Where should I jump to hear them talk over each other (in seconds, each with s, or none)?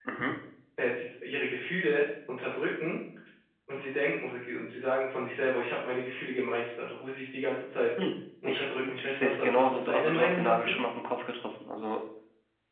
8.5 s